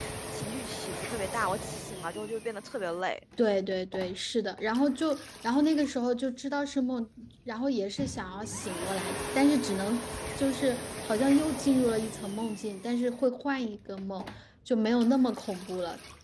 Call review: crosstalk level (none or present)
none